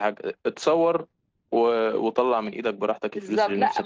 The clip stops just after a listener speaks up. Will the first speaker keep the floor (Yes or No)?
No